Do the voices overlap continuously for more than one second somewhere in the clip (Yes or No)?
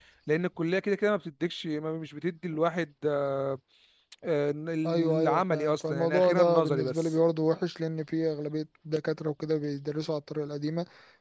Yes